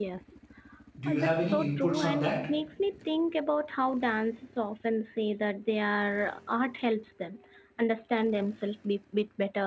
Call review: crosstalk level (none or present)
present